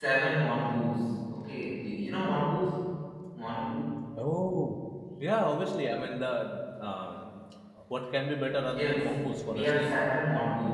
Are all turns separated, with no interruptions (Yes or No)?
No